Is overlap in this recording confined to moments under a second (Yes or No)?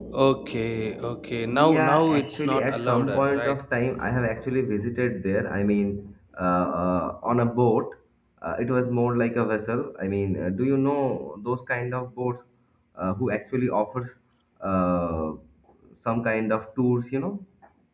No